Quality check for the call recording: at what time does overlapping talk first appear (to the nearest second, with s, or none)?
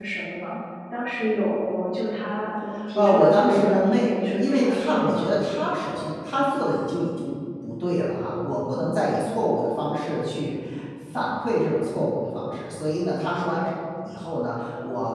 3 s